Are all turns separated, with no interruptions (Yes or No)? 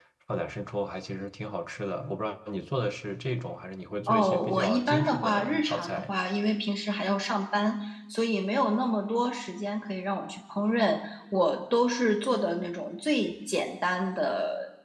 No